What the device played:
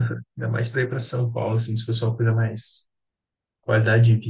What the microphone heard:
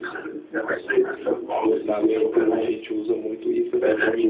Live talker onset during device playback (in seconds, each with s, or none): 1.6 s